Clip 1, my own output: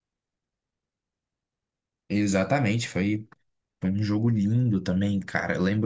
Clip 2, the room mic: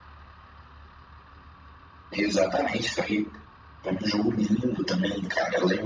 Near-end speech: none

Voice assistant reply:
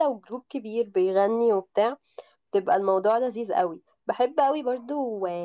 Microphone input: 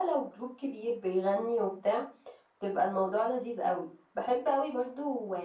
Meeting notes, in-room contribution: none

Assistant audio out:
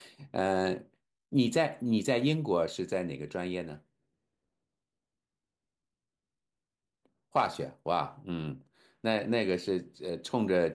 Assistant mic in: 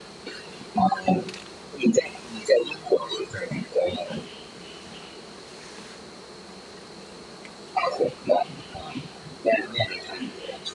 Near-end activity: none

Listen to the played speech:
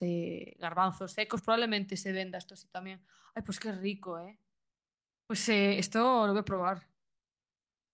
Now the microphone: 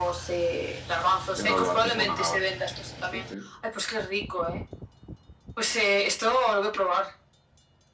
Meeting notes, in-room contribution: present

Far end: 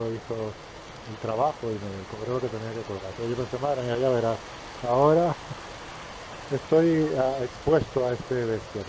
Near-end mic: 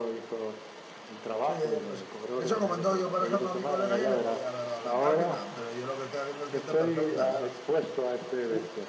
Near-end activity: present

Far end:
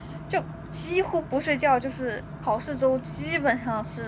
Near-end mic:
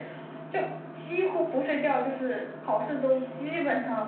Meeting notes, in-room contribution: none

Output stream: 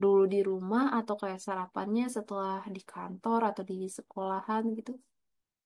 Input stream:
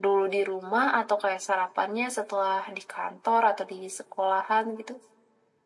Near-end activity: none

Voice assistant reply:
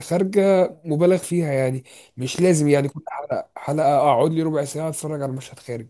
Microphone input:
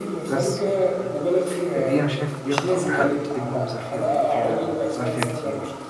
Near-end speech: present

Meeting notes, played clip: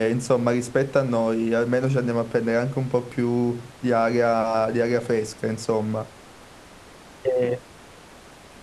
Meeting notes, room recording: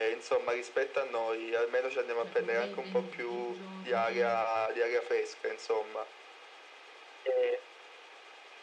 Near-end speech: present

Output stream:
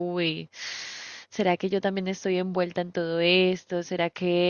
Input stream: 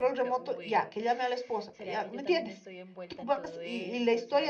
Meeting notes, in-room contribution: present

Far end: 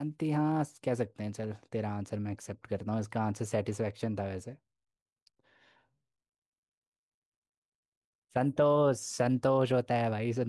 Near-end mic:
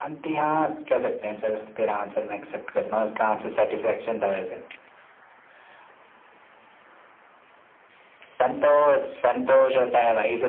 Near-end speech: none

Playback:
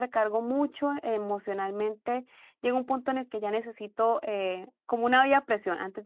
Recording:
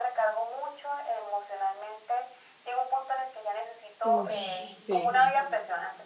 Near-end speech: present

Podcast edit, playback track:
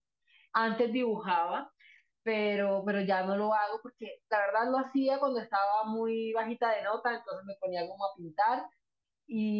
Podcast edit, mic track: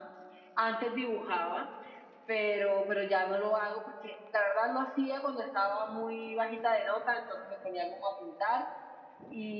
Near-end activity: none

